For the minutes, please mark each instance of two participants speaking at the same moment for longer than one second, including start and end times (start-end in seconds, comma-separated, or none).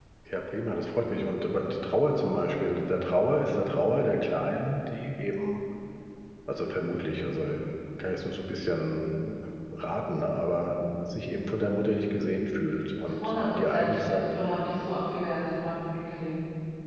13.0-14.2